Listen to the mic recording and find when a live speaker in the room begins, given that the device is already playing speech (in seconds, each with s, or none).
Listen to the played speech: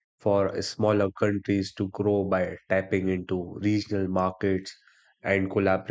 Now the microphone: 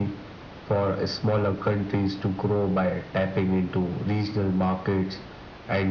none